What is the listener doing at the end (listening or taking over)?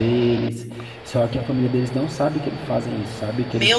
taking over